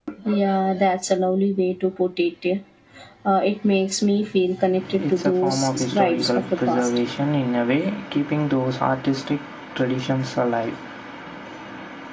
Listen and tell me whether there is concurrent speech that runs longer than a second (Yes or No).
Yes